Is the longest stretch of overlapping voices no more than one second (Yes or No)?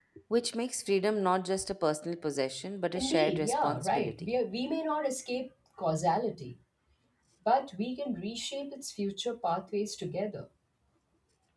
No